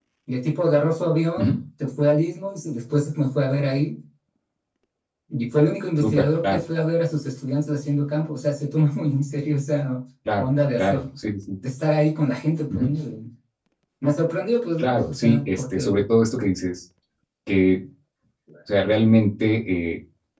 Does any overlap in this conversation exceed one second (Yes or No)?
Yes